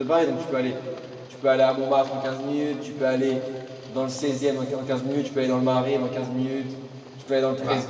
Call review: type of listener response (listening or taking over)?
listening